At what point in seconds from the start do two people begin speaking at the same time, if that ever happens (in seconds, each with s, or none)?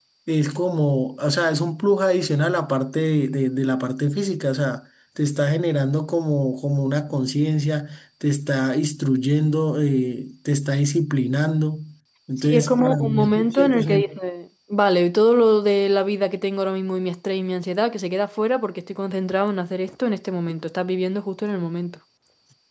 12.4 s